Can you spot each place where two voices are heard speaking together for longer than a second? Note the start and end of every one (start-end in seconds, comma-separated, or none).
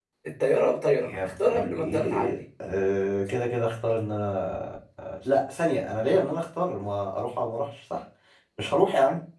1.0-2.3